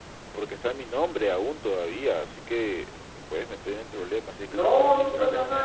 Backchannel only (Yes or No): No